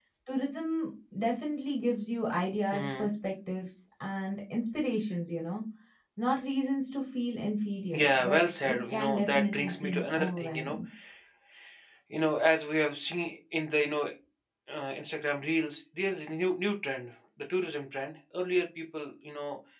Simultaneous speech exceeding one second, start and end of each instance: 7.9-10.8

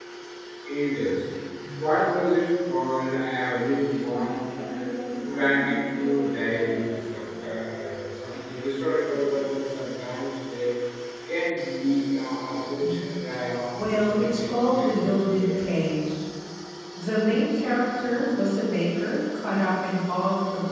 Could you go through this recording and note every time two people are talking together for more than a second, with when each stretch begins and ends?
13.8-15.6

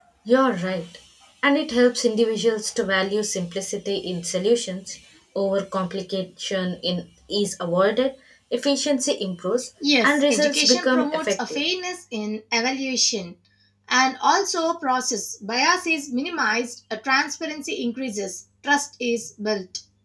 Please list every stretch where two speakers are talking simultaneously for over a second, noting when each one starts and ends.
10.0-11.6

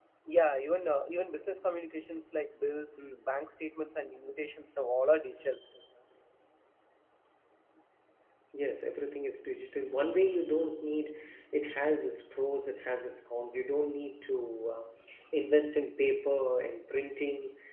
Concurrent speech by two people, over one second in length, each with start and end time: none

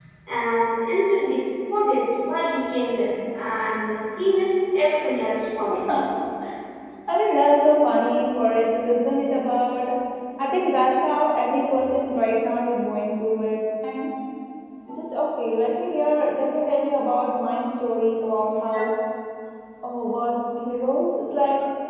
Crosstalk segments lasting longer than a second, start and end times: none

